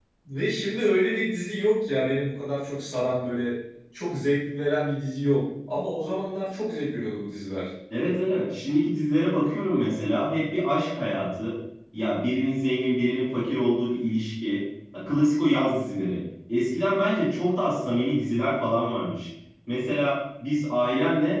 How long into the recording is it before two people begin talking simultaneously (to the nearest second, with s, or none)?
none